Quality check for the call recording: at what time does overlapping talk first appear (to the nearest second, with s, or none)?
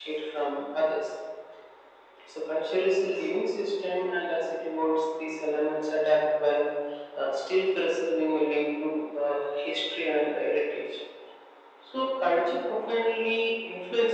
none